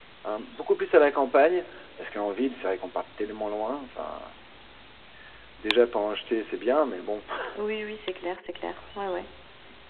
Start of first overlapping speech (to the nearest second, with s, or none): none